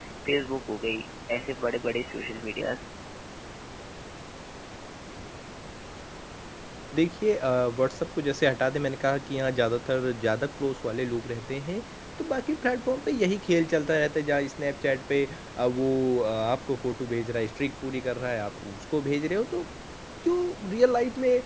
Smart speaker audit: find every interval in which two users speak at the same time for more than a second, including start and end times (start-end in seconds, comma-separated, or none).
none